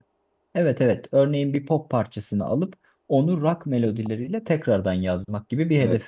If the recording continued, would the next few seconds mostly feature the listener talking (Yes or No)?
Yes